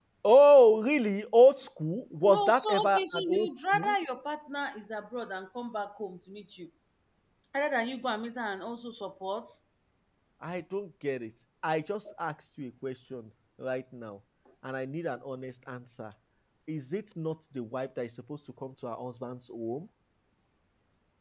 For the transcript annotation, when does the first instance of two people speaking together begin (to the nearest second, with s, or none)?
2 s